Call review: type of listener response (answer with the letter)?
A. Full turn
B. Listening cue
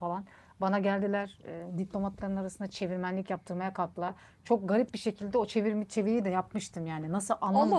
B